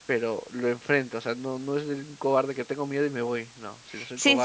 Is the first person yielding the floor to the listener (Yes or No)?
Yes